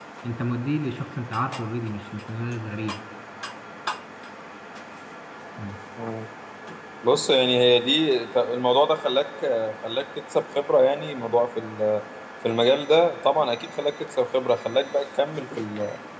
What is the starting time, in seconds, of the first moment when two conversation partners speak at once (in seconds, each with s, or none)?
none